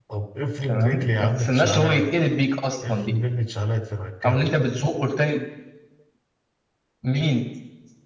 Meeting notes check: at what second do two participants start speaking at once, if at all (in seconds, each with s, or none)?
0.7 s